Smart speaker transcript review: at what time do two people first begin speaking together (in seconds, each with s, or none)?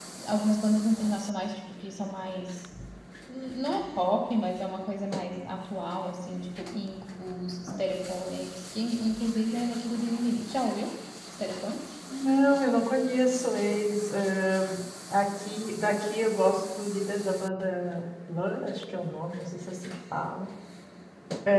none